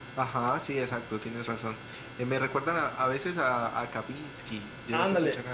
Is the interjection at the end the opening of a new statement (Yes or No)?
Yes